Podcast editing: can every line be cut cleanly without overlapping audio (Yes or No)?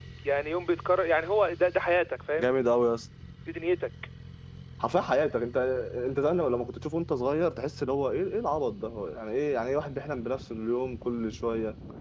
Yes